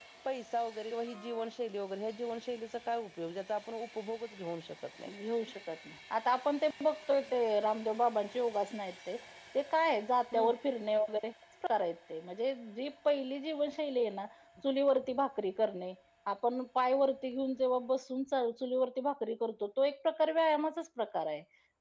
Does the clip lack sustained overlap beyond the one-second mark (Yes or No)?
Yes